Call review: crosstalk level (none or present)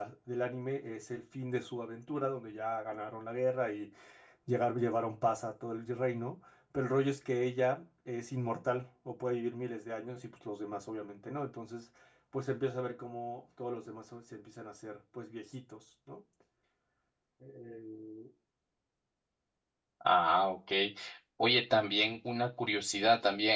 none